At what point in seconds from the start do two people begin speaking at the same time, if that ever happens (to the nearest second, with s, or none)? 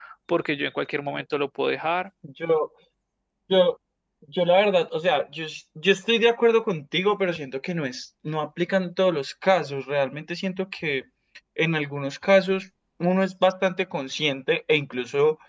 none